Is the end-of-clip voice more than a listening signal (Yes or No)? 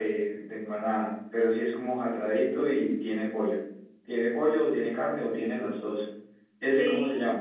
Yes